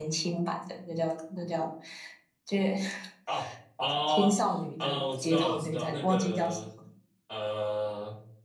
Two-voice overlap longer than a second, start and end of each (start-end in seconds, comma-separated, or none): 4.8-6.6